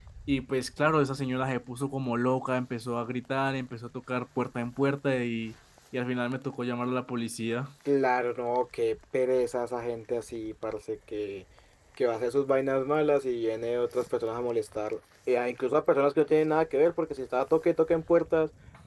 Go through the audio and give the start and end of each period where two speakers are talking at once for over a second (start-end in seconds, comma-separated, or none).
none